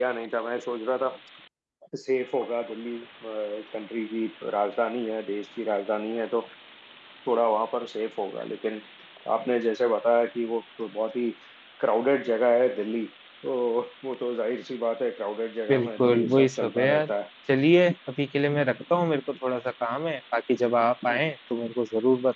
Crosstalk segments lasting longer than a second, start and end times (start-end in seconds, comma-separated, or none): 15.7-17.1